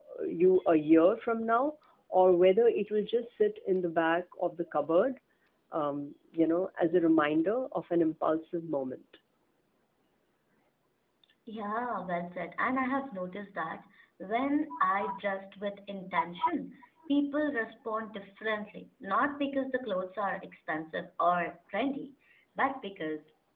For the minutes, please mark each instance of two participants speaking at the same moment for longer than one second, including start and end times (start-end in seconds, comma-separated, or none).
none